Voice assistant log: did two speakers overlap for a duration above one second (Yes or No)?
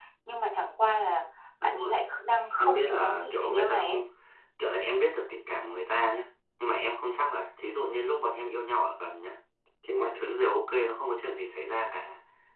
Yes